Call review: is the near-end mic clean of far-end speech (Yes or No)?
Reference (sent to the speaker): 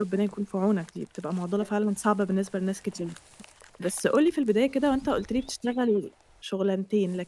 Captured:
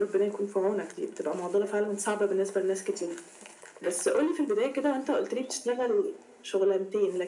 No